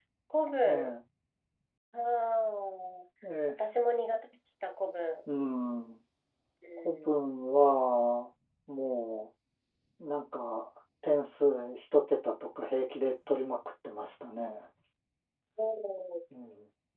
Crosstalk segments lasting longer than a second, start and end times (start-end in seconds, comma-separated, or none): none